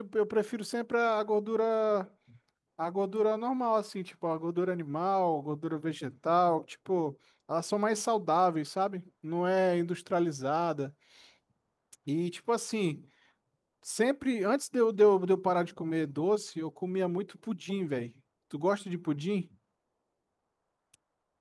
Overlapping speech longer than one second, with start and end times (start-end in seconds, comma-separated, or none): none